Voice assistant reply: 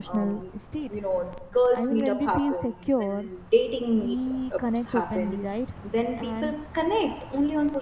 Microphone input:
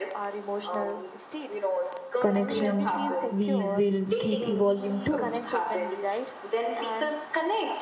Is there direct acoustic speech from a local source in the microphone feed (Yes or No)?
Yes